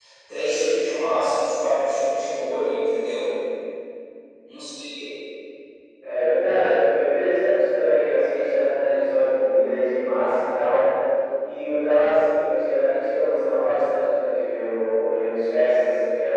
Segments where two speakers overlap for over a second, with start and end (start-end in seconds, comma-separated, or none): none